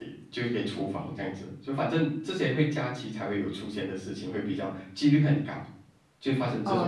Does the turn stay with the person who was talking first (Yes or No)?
No